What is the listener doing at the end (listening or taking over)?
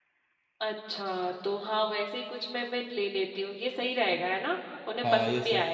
taking over